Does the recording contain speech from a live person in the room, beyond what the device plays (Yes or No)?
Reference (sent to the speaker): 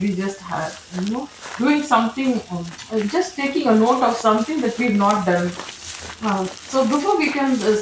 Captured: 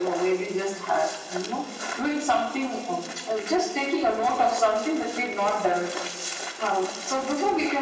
No